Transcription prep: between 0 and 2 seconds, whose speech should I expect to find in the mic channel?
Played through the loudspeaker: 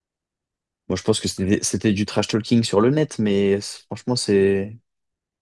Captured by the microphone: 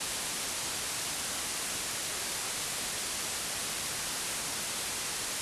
neither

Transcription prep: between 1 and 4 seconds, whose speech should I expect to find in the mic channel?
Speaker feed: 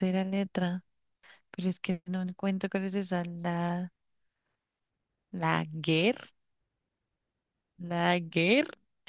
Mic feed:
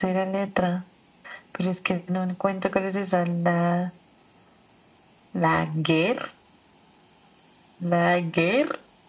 echo only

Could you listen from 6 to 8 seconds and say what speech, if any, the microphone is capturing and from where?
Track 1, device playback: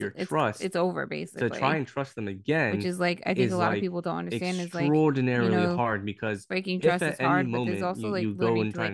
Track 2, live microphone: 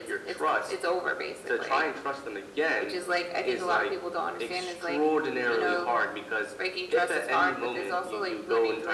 echo only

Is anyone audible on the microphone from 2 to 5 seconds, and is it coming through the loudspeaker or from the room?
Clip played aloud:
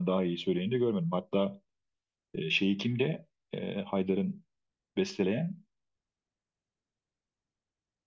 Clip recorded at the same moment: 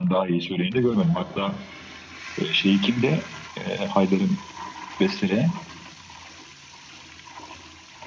echo only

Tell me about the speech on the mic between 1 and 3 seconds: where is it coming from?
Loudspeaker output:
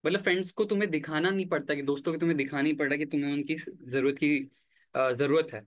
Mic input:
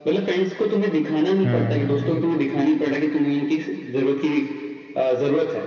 both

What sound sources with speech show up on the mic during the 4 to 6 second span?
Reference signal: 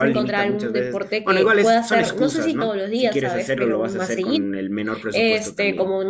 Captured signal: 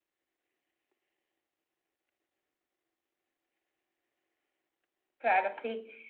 user only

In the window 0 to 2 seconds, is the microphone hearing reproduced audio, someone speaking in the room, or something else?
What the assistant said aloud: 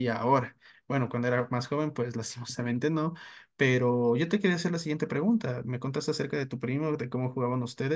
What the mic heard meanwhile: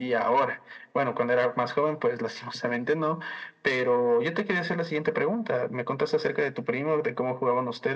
echo only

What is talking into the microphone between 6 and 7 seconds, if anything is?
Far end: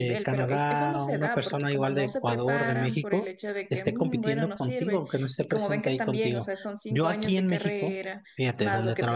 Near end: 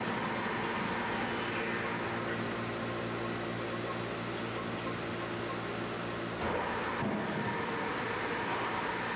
neither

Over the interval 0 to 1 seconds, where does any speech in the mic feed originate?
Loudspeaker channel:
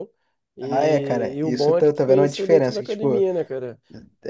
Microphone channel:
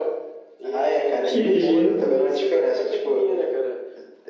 echo only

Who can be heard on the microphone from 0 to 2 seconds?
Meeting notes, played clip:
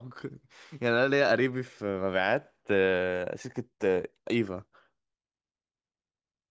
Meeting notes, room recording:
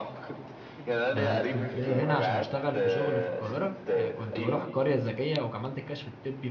both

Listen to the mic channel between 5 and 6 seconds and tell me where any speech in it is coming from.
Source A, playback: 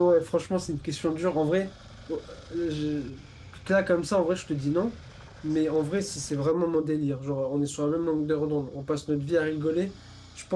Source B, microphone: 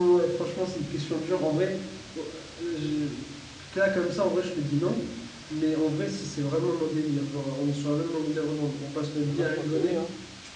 echo only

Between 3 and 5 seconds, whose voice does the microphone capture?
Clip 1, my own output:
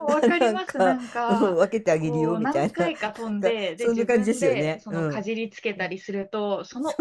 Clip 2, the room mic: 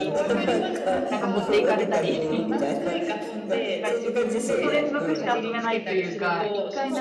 both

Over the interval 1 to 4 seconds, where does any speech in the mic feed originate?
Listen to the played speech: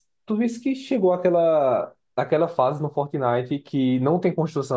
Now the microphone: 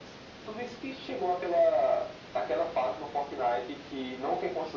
echo only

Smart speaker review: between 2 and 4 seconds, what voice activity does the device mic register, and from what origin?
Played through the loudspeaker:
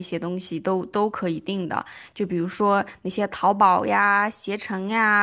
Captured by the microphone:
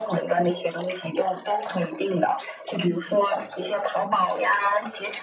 echo only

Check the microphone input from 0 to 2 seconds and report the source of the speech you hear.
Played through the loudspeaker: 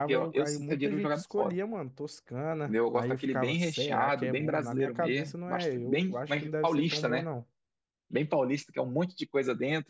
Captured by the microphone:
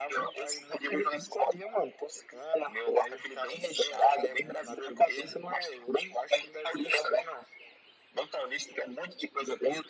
echo only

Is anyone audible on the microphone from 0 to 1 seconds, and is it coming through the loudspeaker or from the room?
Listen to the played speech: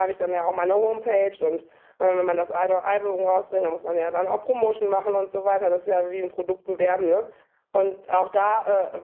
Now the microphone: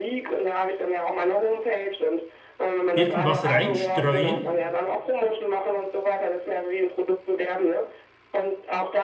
echo only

